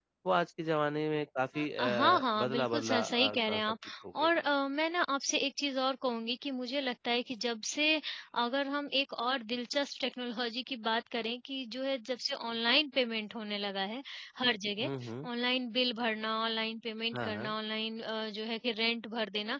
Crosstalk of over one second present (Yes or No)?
Yes